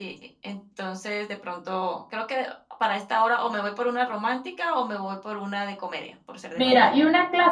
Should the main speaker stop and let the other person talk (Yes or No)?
Yes